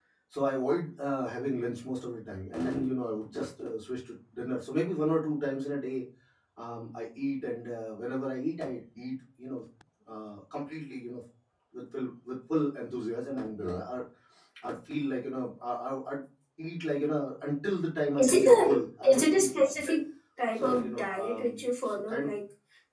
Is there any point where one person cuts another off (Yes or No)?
Yes